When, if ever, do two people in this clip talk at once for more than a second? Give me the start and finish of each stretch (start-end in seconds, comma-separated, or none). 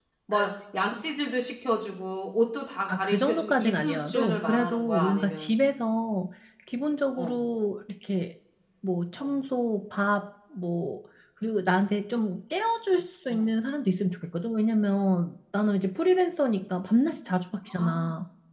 2.9-5.5